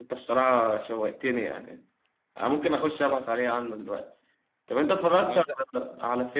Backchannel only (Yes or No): Yes